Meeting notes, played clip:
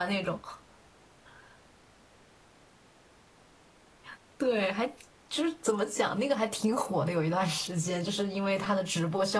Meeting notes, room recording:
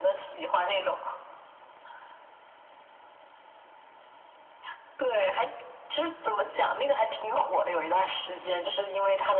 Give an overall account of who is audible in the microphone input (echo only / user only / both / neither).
echo only